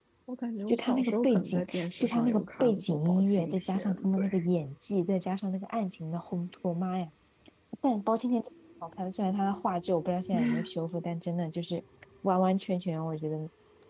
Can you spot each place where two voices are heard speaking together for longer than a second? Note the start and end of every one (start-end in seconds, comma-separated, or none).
0.7-4.3